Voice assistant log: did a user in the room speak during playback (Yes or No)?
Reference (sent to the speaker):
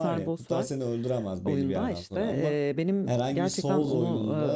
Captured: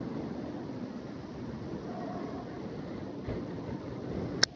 No